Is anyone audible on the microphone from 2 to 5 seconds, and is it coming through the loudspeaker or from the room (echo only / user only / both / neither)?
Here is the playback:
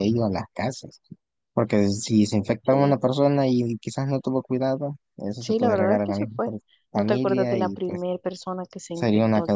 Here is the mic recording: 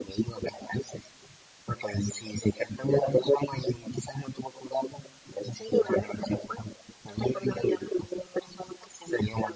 echo only